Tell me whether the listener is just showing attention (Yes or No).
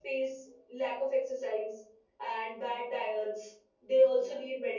Yes